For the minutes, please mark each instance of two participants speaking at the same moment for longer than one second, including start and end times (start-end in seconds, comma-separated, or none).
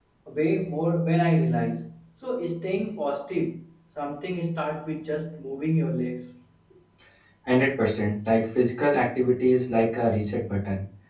none